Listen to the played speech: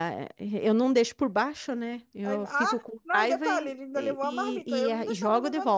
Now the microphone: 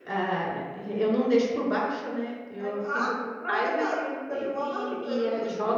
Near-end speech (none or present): none